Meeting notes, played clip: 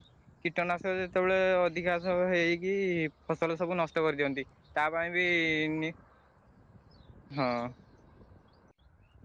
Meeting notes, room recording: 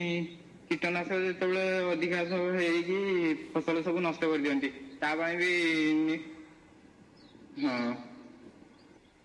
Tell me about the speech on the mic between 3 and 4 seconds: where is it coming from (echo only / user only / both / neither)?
echo only